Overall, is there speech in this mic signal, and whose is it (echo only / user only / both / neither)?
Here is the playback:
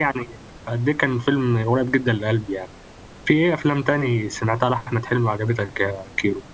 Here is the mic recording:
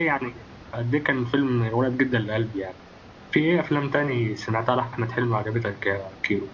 echo only